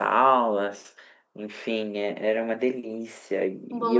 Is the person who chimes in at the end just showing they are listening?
Yes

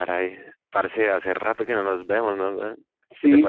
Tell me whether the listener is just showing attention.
Yes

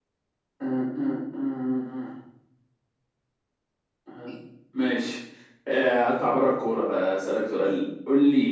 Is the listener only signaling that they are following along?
Yes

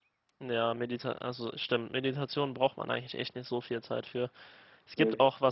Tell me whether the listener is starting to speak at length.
No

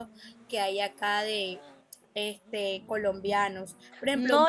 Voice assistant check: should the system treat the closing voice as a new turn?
No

